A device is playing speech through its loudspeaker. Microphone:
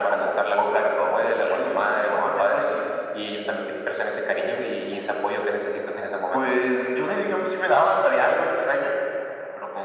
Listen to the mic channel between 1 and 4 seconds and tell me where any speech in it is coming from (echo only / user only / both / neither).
echo only